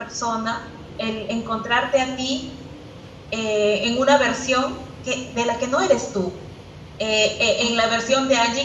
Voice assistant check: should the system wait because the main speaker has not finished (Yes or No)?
Yes